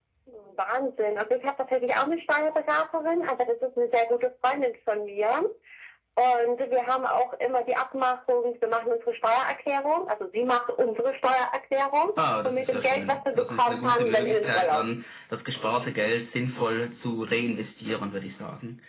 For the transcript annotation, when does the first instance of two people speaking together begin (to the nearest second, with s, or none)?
12 s